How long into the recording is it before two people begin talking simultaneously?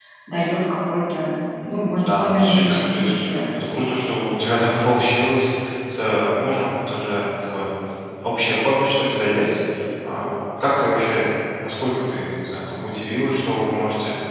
1.8 s

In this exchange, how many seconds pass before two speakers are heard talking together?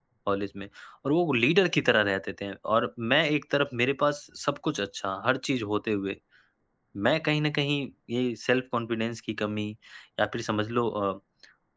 none

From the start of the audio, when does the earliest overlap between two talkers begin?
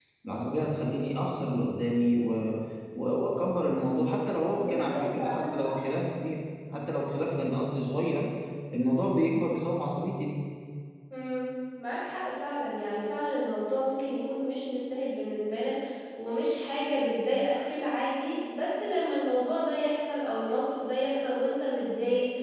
4.5 s

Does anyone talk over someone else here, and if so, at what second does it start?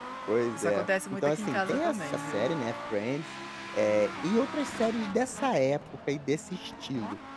0.6 s

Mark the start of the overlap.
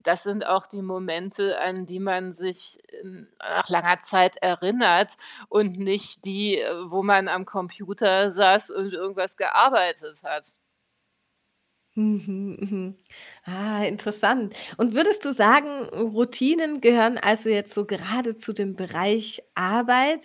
none

